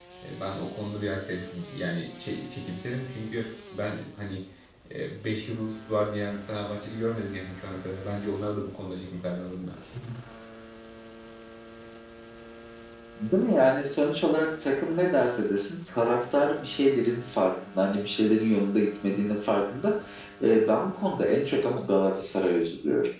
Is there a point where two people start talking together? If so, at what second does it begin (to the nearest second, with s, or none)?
none